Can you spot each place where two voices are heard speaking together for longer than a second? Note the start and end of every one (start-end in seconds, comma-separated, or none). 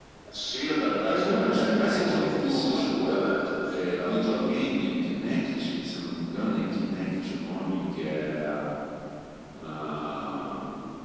1.0-4.5